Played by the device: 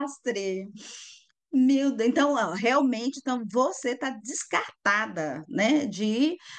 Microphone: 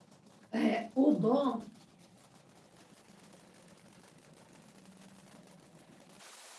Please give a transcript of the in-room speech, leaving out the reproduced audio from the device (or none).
É, o bom